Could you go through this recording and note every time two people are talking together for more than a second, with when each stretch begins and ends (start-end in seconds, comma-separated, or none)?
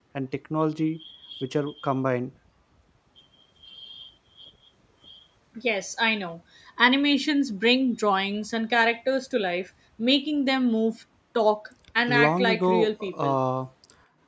12.1-13.4